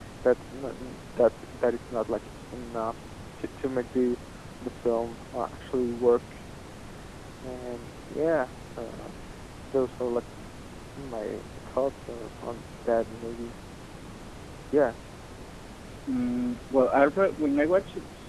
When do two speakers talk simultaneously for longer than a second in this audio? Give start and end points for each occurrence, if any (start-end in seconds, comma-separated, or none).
none